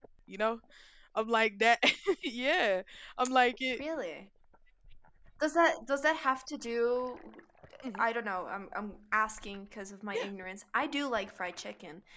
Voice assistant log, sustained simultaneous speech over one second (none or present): none